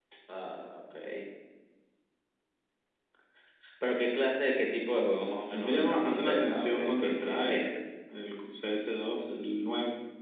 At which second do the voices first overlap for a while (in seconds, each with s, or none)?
5.5 s